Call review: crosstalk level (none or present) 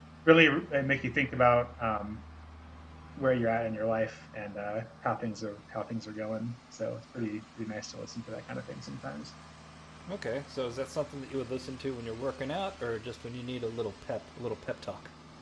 none